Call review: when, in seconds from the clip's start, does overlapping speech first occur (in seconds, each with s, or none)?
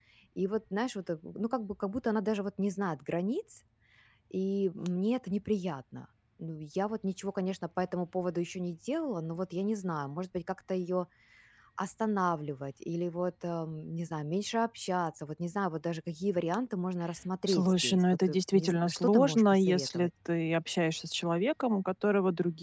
17.5 s